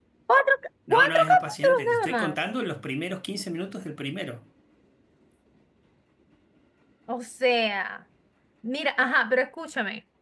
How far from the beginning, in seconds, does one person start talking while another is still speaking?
1 s

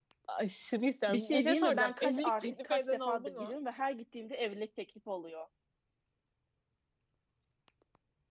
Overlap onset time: 1 s

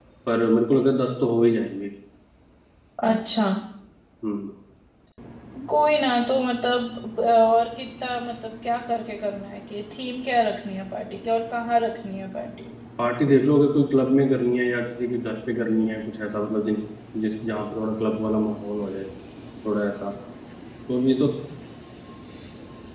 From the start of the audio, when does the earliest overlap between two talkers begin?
none

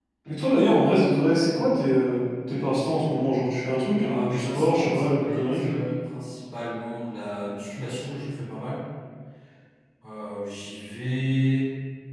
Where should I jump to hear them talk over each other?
4 s

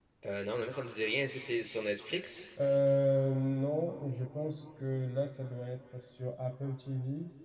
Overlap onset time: none

